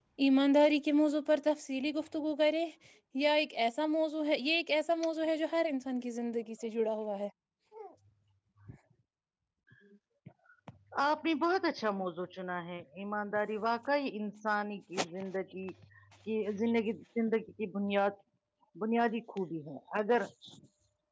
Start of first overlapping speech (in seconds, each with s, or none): none